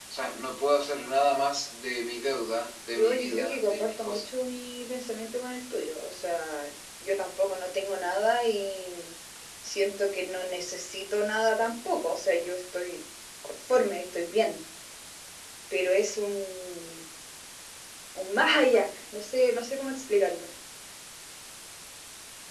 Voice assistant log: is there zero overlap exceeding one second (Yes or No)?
No